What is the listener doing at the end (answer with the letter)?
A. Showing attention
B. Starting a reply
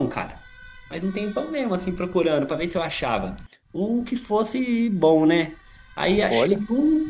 A